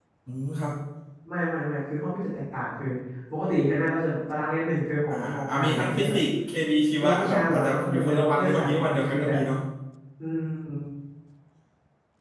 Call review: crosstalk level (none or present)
present